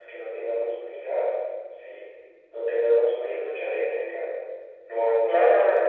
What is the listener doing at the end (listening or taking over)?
taking over